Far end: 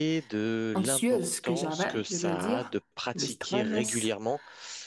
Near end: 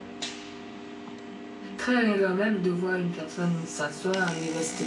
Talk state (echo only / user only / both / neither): user only